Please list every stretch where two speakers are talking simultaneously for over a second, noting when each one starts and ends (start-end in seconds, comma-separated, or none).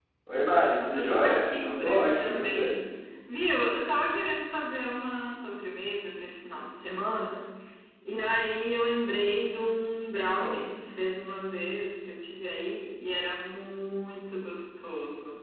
0.8-2.7